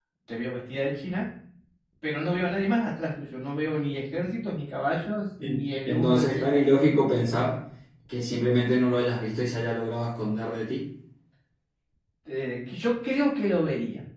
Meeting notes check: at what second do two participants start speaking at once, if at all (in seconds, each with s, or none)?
5.4 s